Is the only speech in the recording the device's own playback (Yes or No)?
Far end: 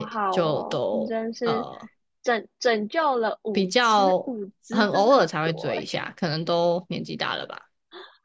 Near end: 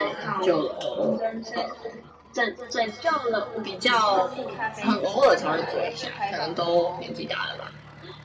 No